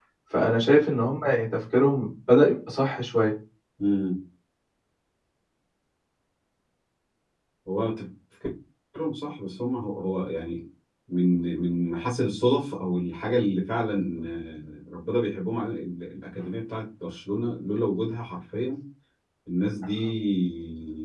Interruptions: none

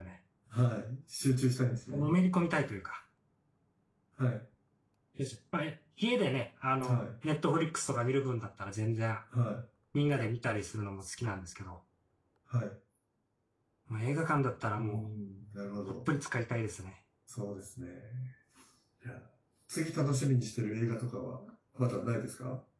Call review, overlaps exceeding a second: none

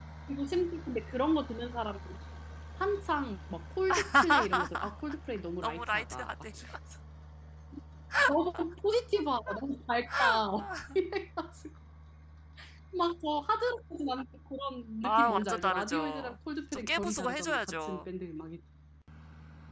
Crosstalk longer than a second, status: present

